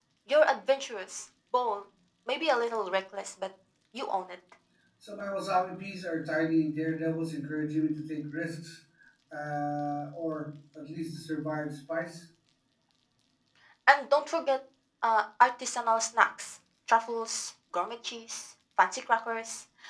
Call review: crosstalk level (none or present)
none